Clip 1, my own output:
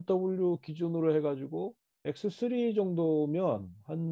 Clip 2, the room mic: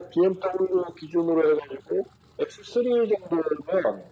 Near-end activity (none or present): none